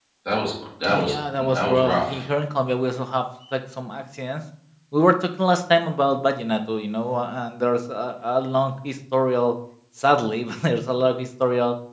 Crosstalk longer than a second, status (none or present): present